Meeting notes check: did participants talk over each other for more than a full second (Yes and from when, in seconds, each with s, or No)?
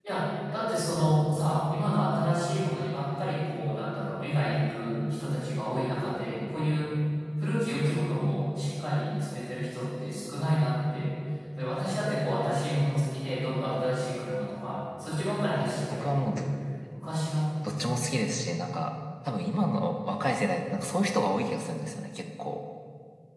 No